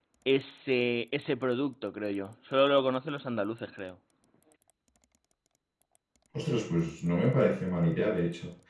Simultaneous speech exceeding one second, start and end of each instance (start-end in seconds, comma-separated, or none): none